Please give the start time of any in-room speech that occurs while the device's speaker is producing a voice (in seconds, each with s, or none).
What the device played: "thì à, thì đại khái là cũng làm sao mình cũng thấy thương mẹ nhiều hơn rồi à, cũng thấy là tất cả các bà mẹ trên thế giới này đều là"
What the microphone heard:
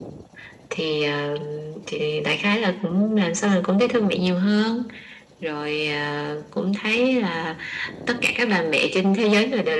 none